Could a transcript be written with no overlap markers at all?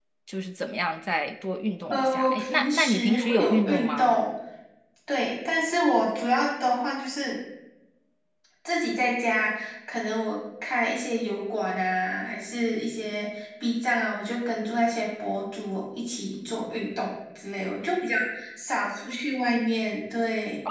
No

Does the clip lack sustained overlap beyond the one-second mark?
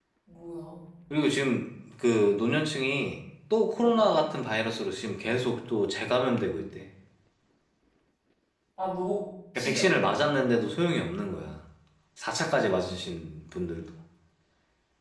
Yes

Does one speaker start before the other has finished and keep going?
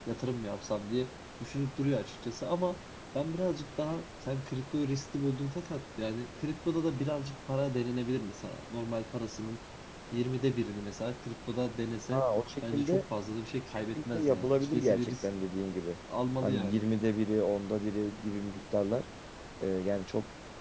Yes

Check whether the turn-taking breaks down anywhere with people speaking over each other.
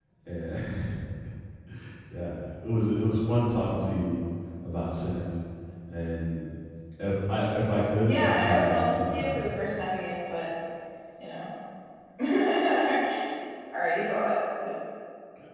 Yes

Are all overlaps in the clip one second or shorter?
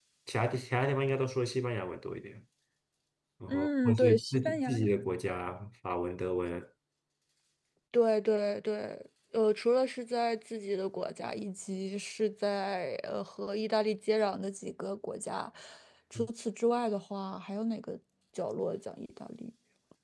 No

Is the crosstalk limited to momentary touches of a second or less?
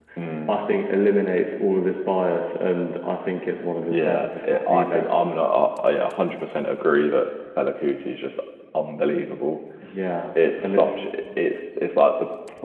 No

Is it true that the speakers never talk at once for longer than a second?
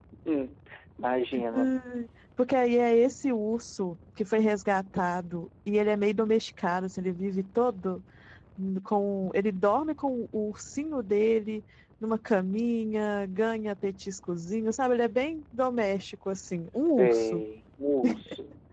Yes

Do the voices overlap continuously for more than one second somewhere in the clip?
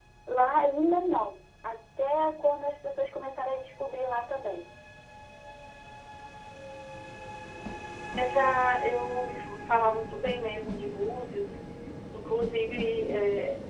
No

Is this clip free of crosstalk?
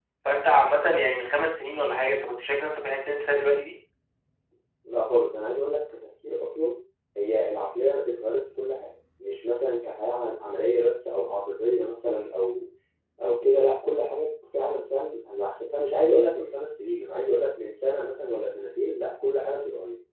Yes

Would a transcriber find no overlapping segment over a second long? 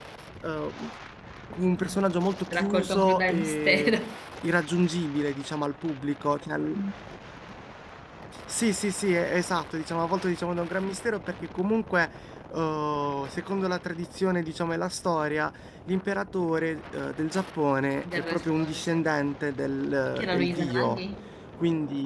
No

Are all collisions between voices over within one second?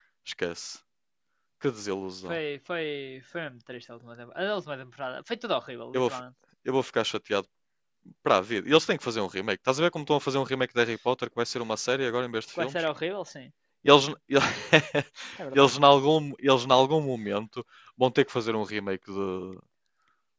Yes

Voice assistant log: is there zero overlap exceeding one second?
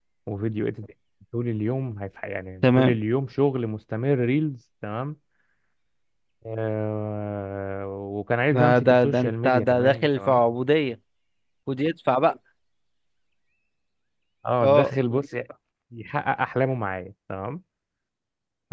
No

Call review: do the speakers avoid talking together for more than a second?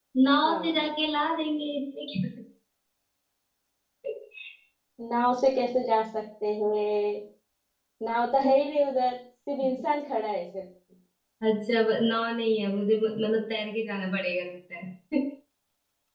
Yes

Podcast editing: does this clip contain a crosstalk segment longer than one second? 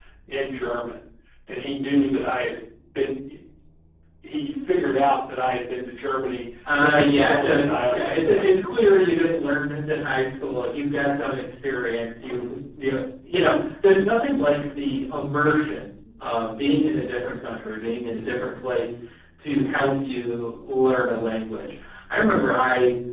Yes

